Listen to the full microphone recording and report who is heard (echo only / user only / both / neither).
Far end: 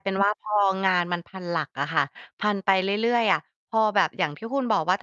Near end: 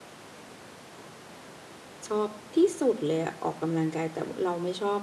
user only